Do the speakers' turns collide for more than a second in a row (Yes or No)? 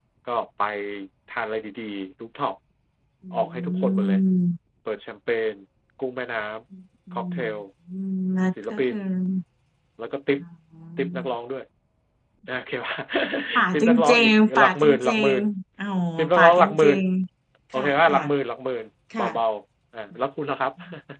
Yes